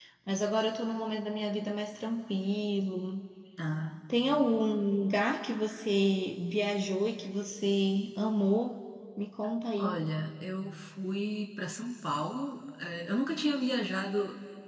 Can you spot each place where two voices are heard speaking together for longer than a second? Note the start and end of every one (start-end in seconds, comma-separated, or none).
none